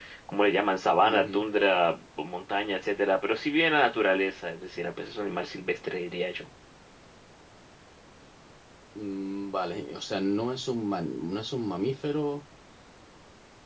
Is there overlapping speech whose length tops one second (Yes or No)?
No